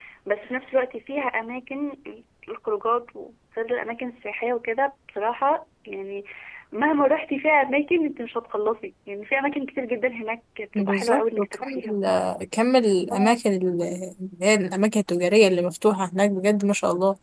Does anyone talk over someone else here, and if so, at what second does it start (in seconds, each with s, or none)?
10.8 s